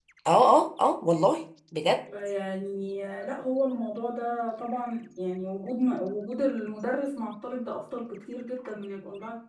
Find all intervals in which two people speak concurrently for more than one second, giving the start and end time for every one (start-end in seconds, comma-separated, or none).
none